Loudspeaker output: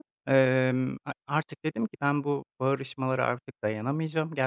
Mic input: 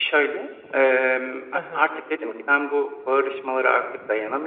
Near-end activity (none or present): present